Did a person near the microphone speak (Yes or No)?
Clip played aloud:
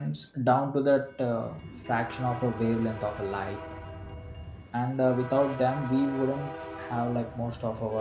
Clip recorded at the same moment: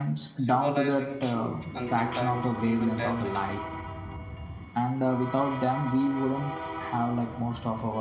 Yes